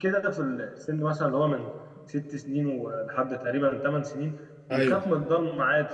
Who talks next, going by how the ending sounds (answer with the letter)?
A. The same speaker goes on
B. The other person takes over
A